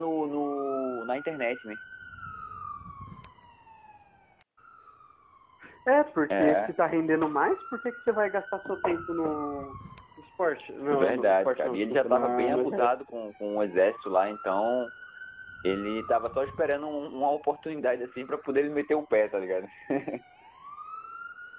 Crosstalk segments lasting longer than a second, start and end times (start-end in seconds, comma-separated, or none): 10.9-12.9